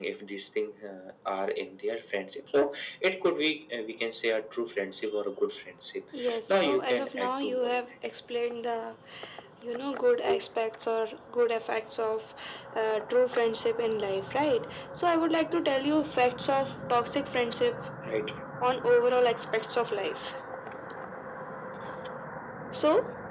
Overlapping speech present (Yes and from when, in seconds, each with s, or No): Yes, from 6.5 s